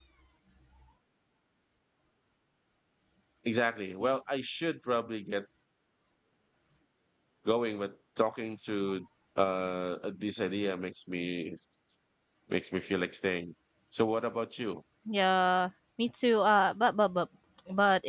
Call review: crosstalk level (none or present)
none